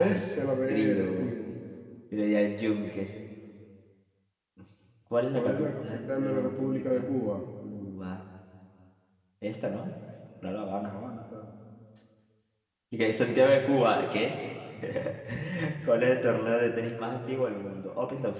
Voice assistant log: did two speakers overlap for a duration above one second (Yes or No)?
Yes